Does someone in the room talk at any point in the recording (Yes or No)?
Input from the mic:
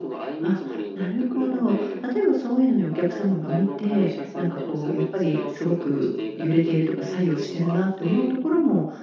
Yes